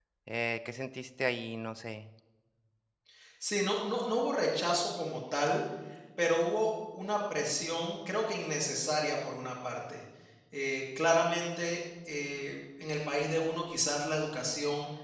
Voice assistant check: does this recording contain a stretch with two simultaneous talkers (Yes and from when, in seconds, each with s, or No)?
No